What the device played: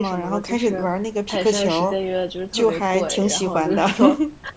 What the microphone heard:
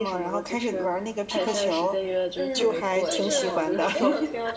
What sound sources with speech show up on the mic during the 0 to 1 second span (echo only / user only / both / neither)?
echo only